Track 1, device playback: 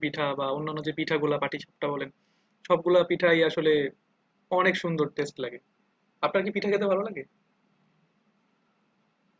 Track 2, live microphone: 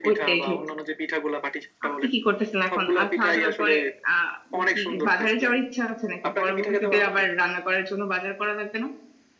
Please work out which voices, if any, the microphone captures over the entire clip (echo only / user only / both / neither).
both